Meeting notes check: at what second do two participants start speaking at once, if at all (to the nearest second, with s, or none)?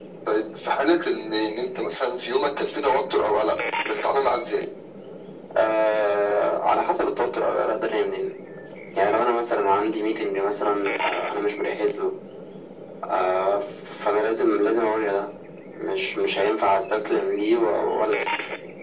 none